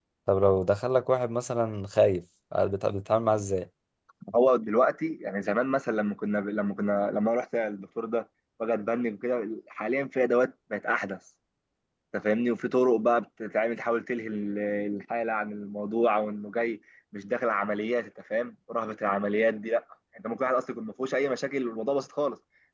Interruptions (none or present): none